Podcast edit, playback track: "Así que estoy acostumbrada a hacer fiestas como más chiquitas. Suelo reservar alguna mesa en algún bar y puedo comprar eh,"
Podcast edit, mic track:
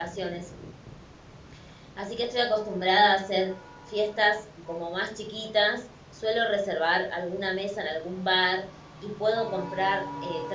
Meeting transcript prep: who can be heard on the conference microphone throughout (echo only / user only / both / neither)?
echo only